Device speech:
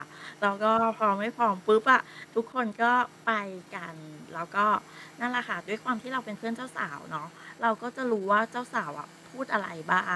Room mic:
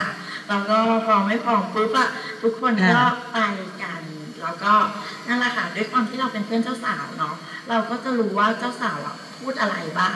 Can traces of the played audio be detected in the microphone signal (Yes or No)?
Yes